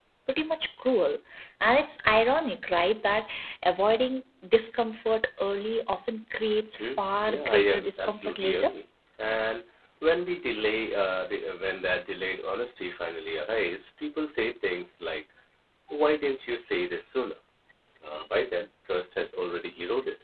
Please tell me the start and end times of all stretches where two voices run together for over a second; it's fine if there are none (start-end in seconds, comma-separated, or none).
6.8-8.7